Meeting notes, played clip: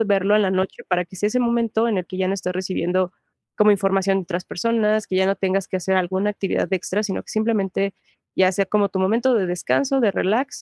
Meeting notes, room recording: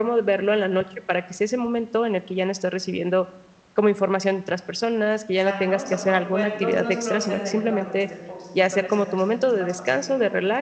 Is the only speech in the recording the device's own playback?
No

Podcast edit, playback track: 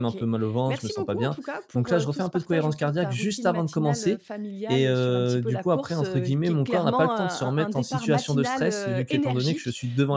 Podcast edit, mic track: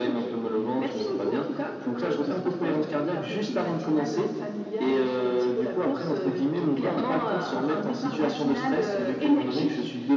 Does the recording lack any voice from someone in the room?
Yes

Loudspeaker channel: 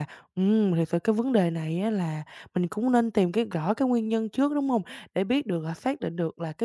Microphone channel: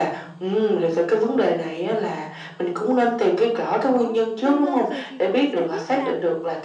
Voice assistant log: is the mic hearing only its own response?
No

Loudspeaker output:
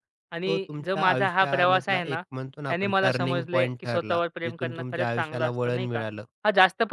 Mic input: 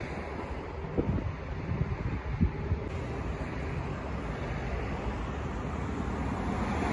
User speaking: No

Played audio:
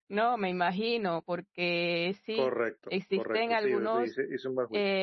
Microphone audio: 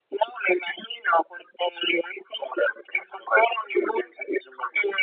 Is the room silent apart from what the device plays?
Yes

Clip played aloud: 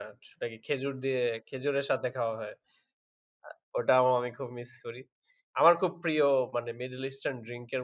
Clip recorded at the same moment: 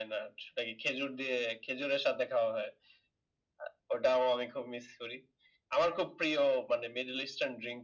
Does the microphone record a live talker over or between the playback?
No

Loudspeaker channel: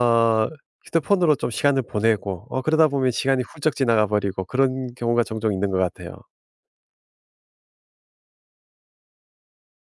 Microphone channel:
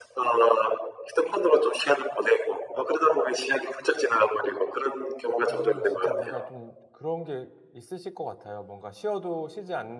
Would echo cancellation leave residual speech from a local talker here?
Yes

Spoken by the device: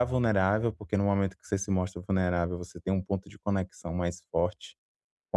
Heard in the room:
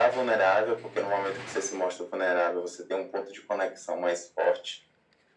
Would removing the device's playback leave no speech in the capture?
Yes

